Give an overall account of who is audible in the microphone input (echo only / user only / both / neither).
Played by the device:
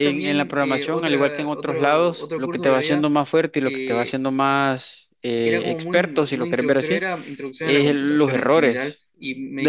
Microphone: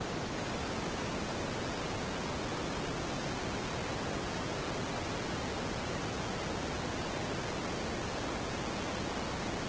neither